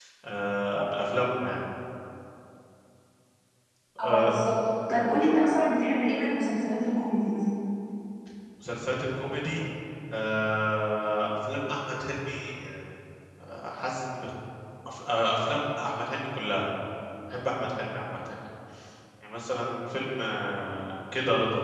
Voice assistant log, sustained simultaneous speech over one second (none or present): none